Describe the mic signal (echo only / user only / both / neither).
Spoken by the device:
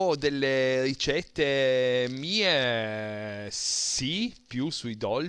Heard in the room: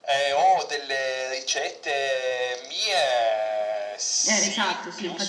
both